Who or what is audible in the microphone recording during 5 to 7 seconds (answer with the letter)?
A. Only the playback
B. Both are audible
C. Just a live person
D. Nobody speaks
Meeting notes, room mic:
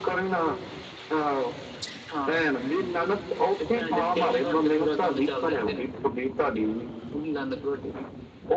A